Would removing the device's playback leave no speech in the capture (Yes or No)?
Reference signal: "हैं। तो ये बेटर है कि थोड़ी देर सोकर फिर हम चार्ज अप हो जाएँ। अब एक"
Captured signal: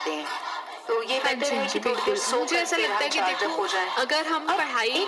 No